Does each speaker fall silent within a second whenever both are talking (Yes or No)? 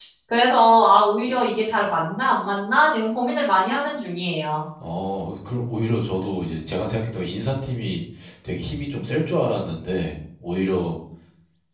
Yes